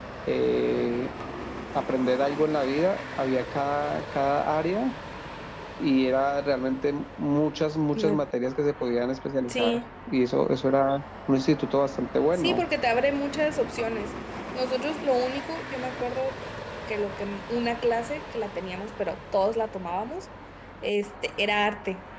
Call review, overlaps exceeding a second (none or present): none